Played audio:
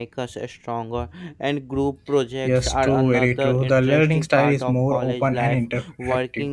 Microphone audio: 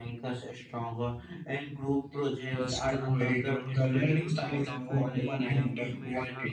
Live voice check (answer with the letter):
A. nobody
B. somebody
B